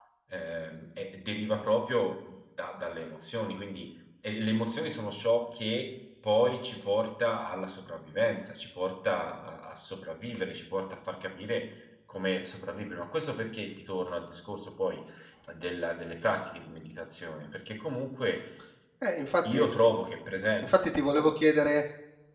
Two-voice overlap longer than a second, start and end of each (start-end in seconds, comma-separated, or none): none